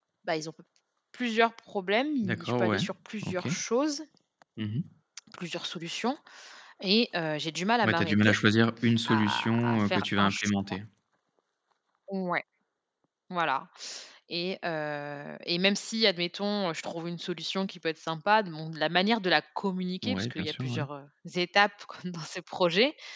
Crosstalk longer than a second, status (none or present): present